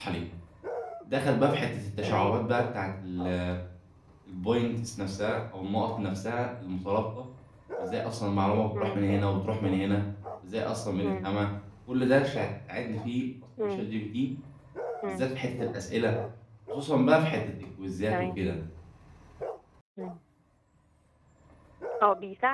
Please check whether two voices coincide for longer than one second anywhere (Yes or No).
No